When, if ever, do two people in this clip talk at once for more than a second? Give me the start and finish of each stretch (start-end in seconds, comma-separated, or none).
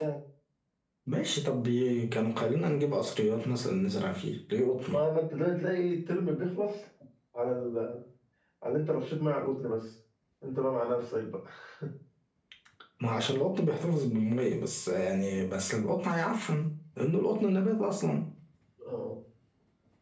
none